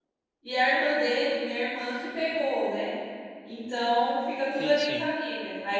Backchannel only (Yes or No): Yes